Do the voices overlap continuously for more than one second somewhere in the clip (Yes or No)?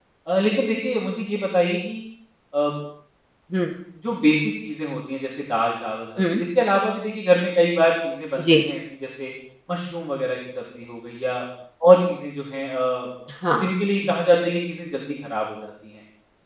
No